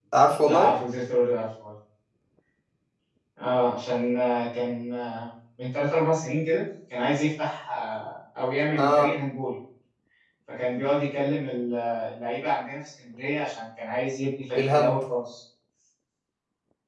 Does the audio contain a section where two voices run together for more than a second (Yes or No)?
No